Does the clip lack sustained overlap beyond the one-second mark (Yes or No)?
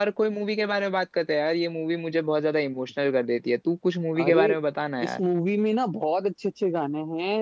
Yes